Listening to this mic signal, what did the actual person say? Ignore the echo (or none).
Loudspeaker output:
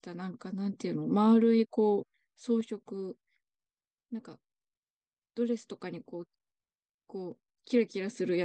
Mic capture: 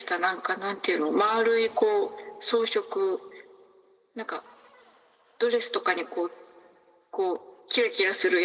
none